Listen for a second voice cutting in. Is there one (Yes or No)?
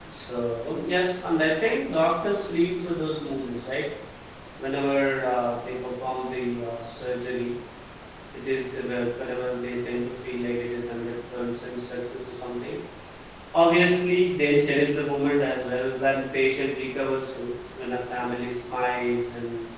No